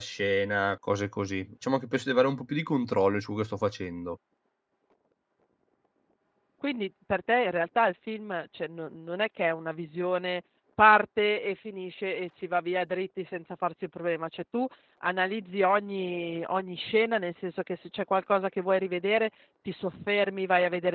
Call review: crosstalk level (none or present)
none